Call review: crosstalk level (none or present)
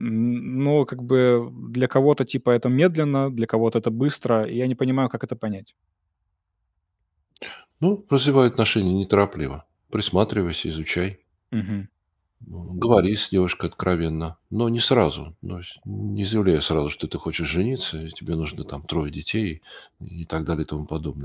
none